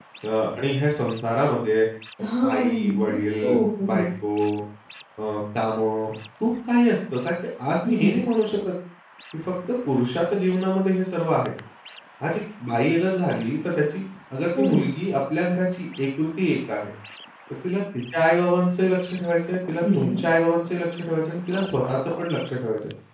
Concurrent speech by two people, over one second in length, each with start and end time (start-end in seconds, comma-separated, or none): 2.4-4.1